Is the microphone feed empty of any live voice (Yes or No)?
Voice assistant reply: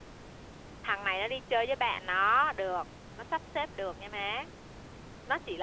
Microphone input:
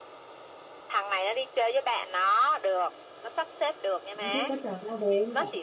No